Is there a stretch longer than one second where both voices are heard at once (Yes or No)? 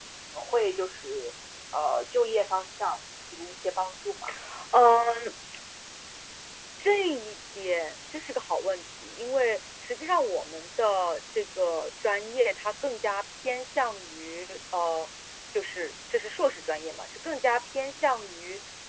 No